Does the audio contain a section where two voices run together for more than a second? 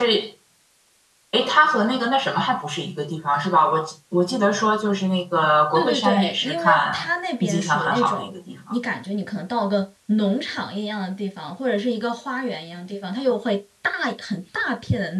Yes, from 5.7 s

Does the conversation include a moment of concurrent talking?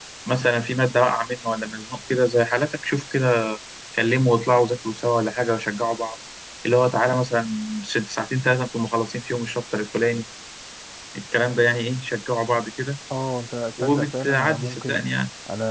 Yes, from 13.8 s

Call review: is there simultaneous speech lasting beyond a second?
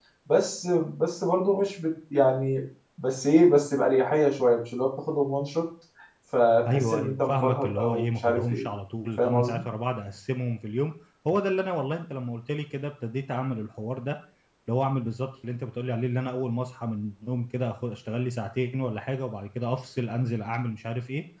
Yes, from 6.7 s

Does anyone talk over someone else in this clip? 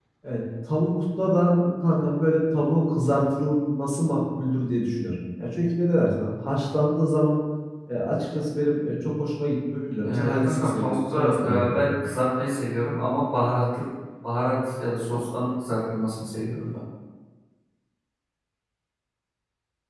Yes, from 9.9 s

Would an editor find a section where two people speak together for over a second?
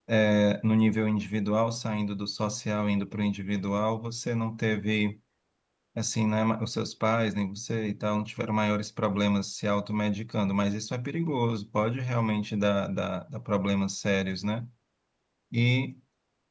No

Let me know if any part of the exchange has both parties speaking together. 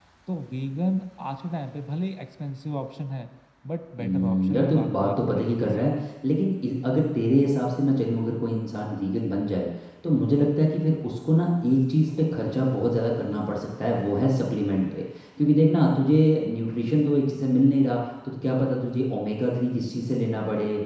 Yes, from 4.0 s

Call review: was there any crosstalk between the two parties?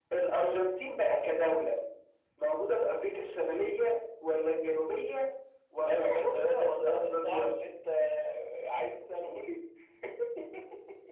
Yes, from 5.8 s

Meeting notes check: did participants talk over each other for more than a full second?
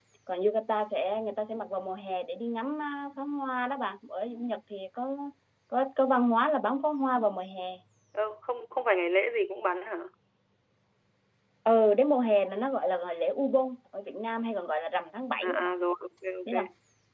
No

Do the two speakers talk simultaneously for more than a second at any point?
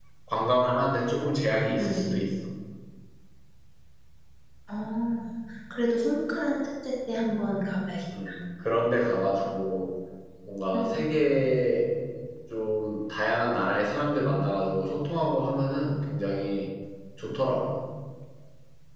No

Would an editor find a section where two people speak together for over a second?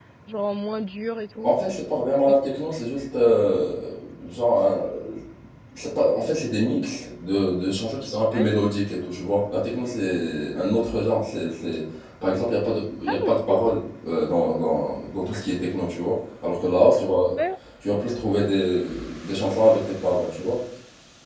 No

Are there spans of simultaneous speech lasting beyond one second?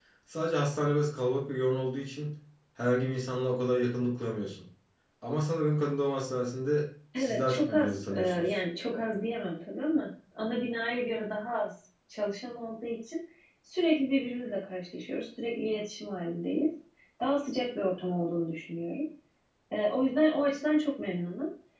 Yes, from 7.1 s

